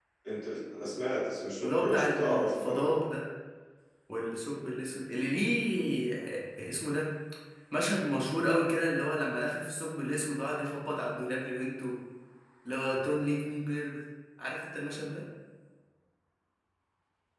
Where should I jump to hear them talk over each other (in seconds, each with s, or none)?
1.6 s